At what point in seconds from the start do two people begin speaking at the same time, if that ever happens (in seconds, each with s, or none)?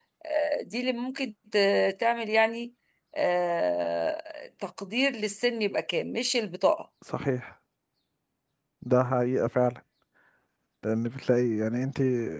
none